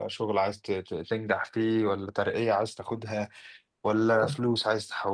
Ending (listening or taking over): listening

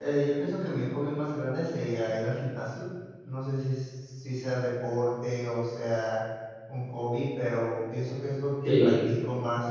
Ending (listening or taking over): listening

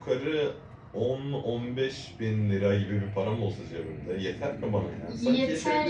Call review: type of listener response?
taking over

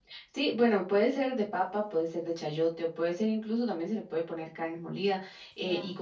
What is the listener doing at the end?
listening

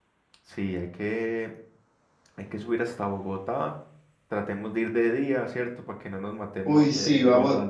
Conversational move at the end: taking over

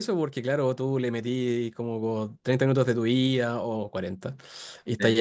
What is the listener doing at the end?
listening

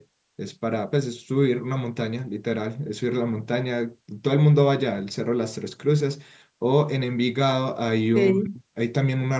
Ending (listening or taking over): listening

